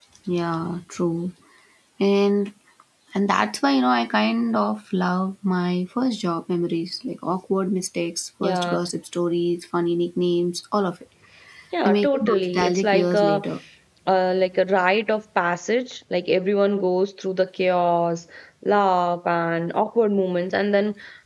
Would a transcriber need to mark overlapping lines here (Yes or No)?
Yes